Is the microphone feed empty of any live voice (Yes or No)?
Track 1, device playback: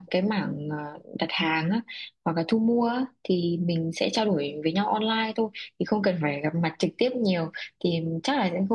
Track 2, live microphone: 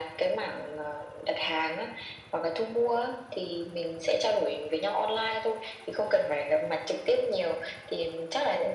Yes